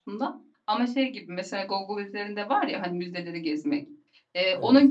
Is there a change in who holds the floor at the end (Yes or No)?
No